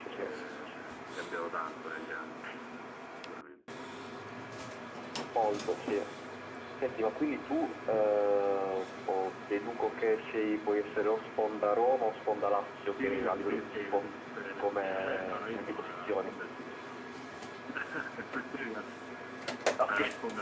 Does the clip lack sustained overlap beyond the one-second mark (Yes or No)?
No